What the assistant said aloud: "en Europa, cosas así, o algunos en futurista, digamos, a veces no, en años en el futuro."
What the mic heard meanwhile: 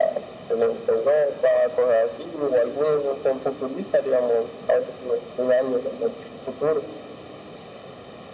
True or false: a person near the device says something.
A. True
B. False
B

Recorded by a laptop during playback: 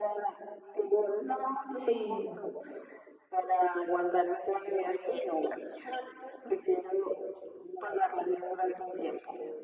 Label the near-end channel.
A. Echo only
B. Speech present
B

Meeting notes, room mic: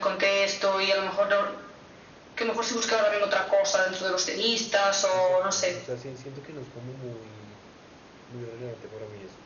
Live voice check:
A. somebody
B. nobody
A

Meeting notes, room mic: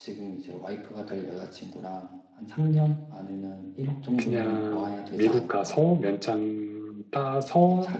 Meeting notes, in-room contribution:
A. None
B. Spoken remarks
B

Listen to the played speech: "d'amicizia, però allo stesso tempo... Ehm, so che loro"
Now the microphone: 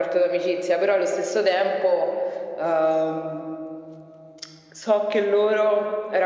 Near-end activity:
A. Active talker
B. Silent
B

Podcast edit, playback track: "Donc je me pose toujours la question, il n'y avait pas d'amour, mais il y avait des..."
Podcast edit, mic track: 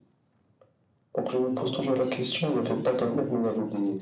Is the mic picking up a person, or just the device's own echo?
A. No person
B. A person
B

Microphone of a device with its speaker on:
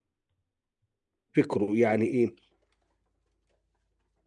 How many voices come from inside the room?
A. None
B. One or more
B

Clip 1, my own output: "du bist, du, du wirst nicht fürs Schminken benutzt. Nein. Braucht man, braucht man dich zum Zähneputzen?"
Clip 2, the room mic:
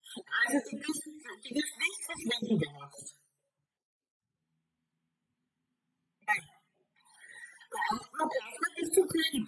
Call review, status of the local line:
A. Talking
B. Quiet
B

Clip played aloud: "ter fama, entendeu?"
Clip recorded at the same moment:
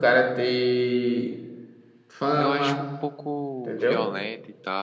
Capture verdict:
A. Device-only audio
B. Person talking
B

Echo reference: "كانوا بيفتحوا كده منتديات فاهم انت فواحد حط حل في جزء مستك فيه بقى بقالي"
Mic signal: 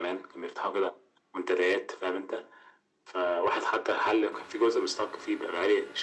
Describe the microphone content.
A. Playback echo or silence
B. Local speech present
A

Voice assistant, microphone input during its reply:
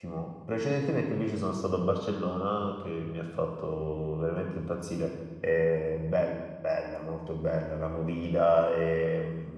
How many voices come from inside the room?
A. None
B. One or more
B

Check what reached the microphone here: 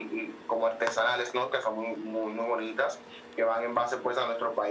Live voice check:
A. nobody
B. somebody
A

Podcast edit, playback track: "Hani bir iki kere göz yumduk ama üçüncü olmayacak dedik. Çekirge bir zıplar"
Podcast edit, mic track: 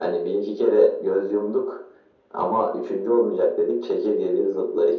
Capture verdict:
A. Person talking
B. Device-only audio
B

